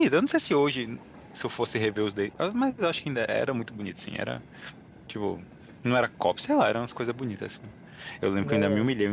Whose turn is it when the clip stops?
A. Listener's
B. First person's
B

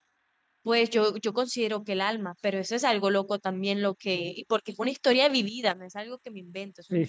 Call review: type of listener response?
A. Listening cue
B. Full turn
B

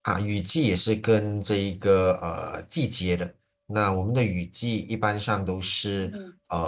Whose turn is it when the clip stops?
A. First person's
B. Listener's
A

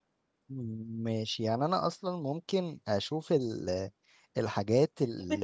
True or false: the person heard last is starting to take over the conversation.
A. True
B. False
A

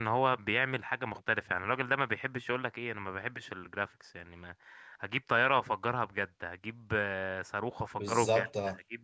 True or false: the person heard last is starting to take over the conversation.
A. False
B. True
A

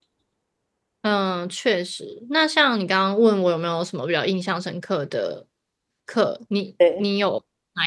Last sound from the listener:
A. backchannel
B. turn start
A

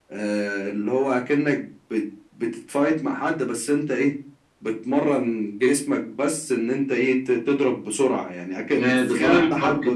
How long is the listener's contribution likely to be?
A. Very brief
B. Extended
B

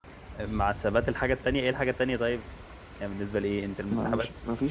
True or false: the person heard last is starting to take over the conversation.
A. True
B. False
A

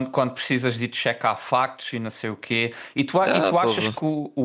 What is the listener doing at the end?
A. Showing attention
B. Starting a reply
A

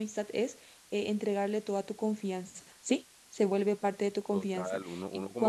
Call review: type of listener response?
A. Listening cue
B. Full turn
B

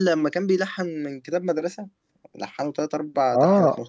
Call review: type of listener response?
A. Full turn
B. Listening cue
A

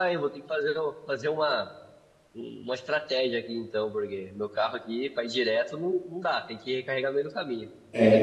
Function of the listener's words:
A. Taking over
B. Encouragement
A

